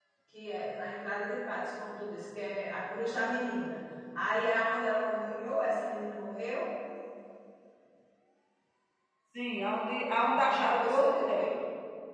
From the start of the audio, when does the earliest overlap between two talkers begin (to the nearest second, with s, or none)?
10 s